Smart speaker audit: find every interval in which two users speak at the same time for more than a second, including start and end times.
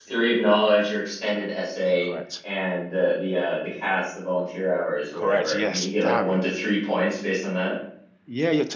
5.1-6.4

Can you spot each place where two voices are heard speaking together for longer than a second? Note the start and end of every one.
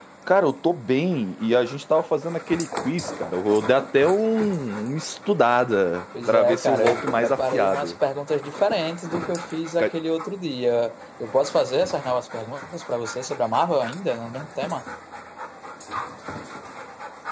6.3-7.9

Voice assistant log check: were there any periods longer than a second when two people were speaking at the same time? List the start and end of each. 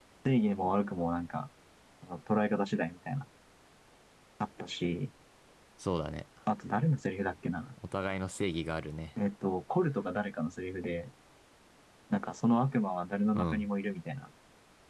none

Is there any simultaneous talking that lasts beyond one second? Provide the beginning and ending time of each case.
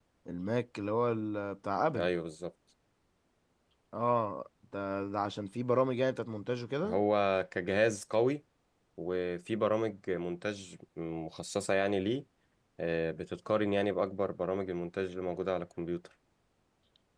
none

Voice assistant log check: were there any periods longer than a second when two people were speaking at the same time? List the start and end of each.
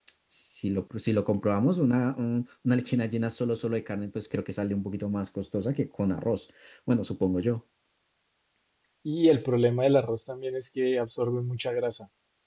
none

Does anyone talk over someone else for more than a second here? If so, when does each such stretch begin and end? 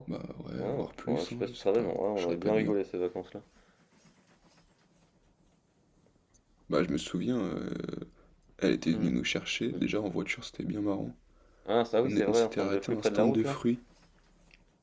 0.6-2.7, 12.1-13.6

